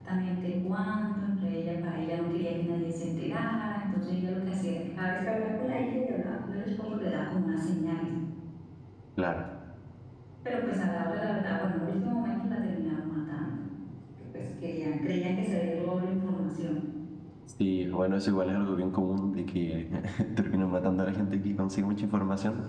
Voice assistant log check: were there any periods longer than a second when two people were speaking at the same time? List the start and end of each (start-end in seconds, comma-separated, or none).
none